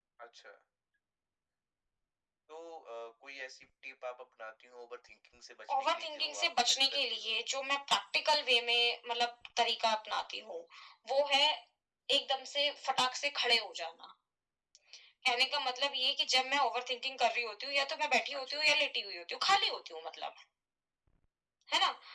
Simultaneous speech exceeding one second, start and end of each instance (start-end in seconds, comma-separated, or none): 5.7-7.3